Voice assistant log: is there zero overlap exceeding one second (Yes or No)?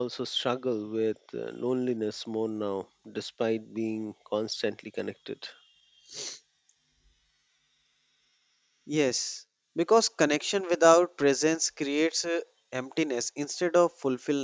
Yes